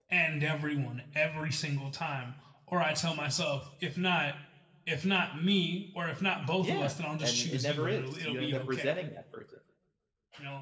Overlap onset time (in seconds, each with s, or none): 6.6 s